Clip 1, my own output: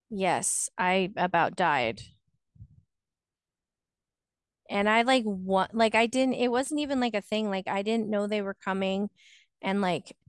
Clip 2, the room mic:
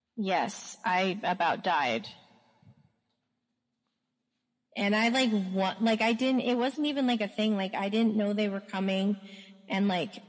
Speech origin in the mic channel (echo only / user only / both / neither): echo only